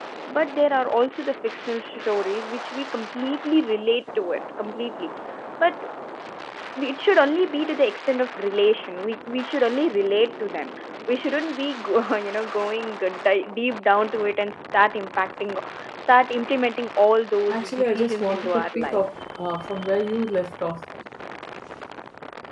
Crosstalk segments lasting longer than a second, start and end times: 17.5-19.0

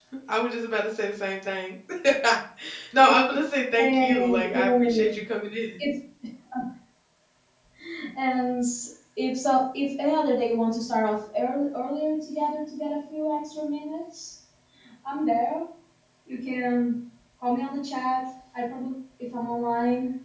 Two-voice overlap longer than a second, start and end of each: 3.8-5.2

